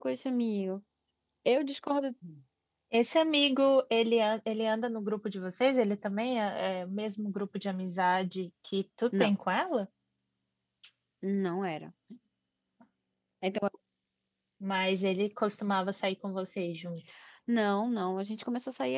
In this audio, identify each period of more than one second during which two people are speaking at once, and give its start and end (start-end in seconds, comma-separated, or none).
none